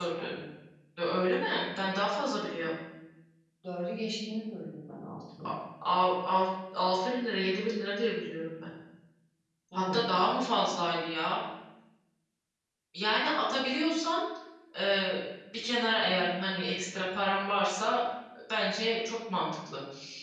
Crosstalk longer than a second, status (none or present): none